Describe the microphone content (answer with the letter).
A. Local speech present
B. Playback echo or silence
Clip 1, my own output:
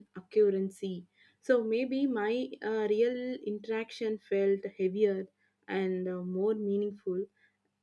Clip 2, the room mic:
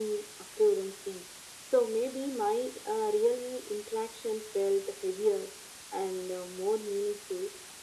B